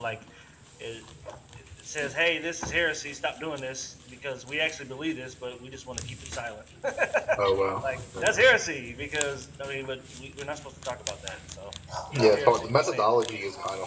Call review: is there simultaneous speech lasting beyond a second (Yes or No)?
Yes